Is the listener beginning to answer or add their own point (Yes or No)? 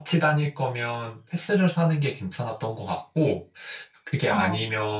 No